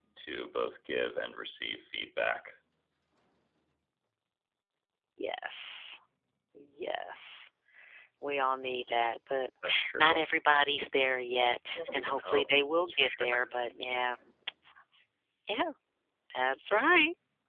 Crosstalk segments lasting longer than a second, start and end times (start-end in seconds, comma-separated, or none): 11.8-13.5